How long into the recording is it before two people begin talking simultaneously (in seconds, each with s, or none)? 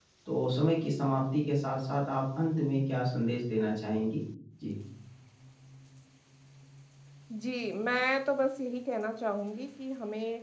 none